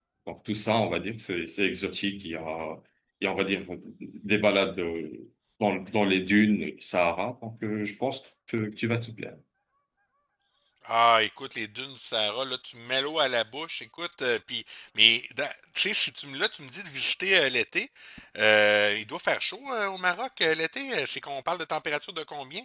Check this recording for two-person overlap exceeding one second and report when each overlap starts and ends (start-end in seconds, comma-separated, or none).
none